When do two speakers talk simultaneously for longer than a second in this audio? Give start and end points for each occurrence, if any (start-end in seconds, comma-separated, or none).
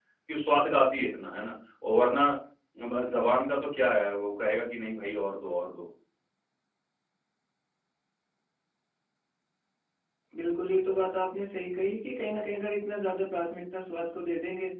none